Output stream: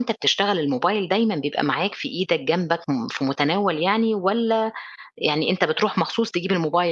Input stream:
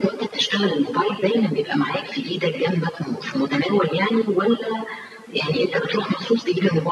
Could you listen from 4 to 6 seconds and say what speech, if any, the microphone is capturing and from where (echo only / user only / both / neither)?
echo only